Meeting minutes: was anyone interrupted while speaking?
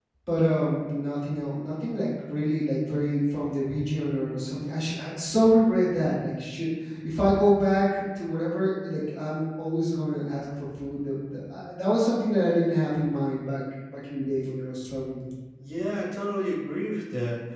No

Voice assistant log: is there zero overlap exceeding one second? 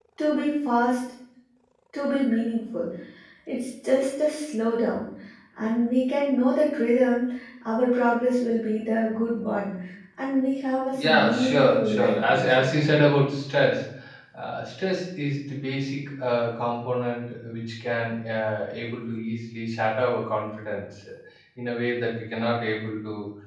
No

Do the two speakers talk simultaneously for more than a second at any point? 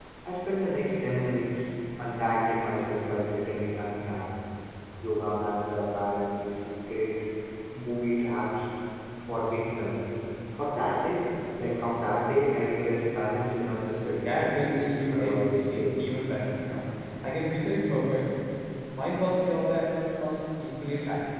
Yes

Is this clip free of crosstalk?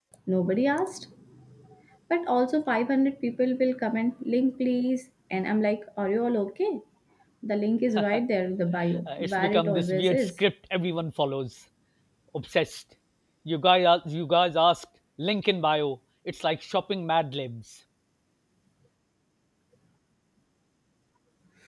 No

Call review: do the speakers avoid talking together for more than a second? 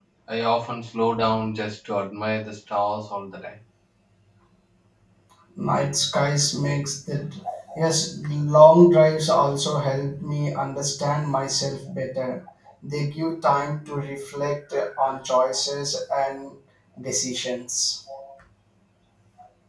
Yes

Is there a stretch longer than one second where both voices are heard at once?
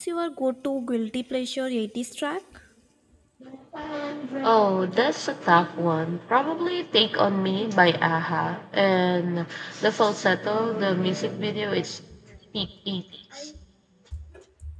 No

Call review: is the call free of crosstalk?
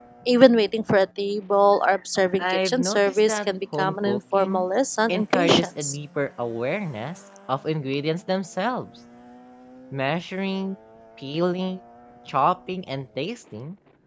No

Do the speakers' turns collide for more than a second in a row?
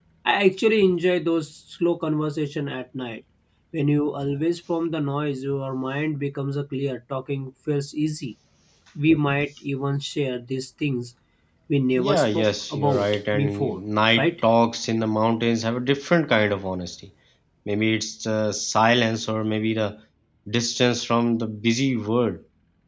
Yes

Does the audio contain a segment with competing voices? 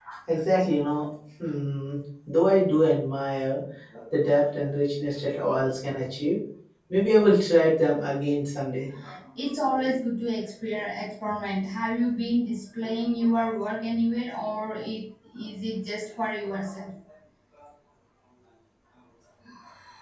No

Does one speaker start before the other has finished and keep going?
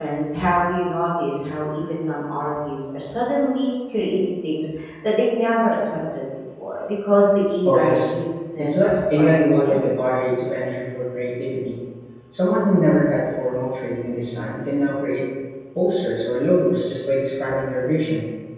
Yes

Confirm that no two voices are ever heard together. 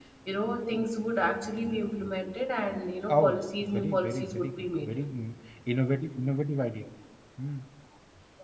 No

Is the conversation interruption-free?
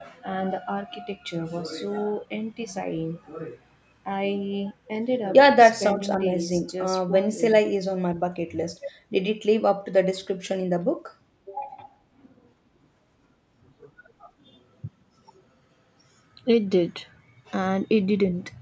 No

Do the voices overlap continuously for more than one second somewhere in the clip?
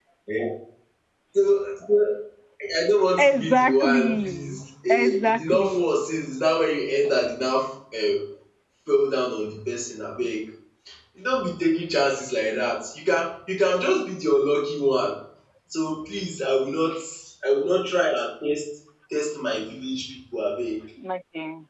Yes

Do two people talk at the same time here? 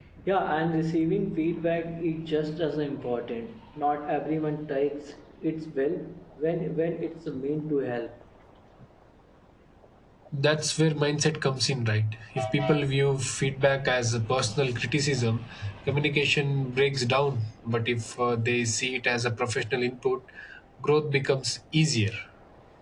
No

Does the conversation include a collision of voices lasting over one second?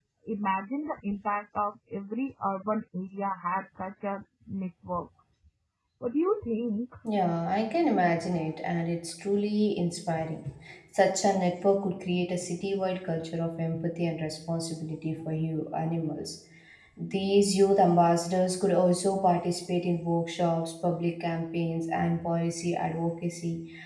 No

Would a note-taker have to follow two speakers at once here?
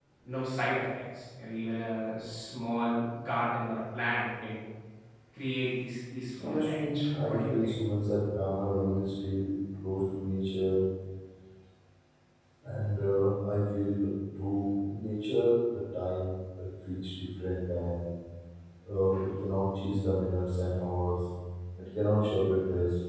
Yes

